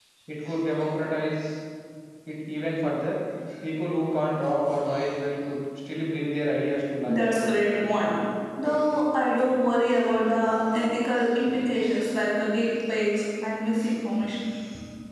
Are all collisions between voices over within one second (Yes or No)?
Yes